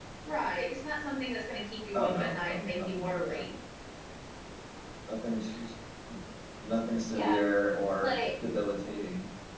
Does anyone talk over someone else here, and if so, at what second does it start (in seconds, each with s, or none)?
1.9 s